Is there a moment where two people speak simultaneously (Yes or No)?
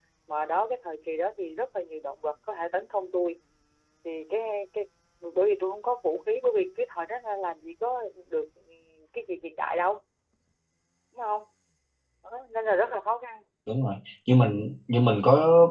No